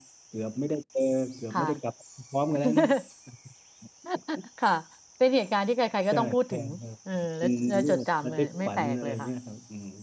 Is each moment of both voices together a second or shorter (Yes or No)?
No